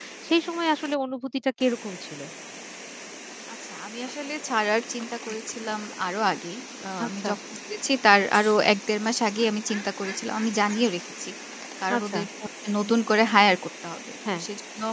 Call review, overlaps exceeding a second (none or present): none